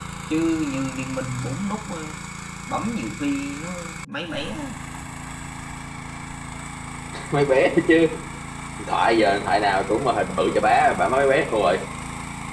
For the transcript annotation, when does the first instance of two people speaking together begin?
none

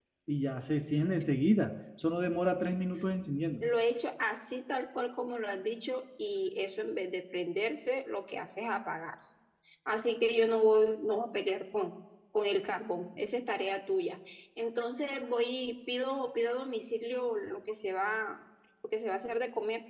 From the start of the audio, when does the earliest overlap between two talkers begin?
none

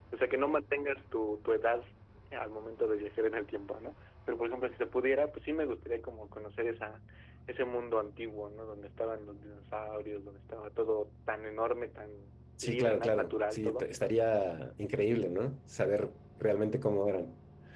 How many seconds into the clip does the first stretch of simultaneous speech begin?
12.6 s

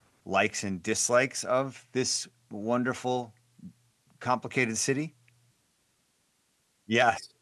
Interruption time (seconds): none

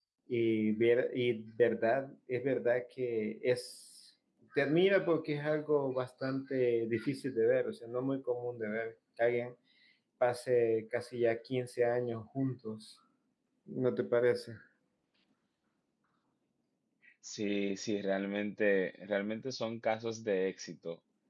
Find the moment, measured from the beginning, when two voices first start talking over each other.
none

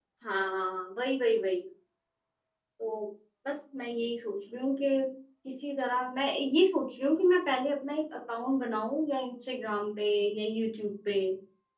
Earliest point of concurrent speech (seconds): none

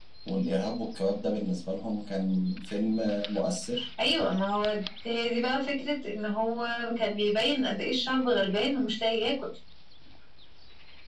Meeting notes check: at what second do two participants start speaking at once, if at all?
none

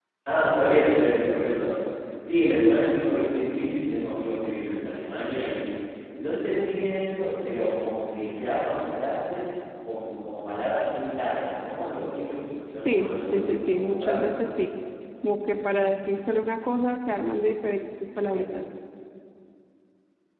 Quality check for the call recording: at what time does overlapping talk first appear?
12.8 s

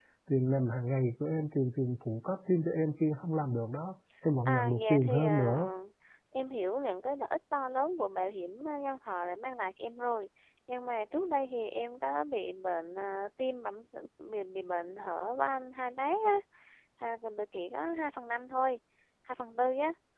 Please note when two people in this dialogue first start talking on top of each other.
4.5 s

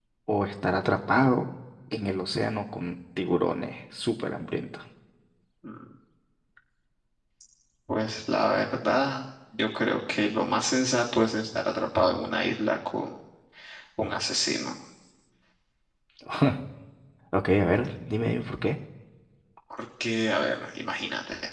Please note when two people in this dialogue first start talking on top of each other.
none

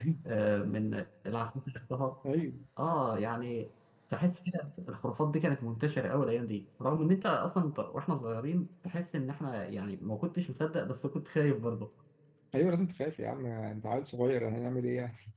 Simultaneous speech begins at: none

